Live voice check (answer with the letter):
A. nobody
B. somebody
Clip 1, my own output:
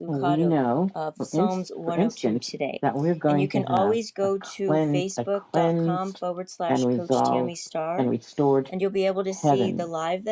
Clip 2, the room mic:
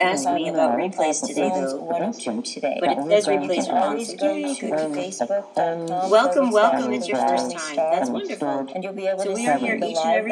B